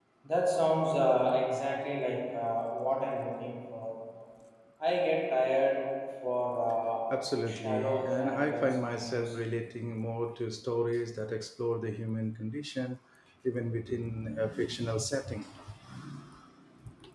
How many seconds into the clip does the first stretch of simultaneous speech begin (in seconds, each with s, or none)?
7.5 s